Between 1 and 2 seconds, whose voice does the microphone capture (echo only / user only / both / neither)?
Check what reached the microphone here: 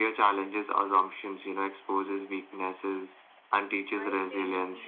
echo only